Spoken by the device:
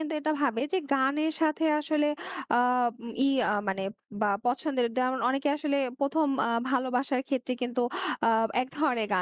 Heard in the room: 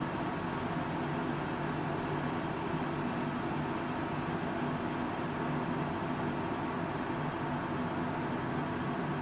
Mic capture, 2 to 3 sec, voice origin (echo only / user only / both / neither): neither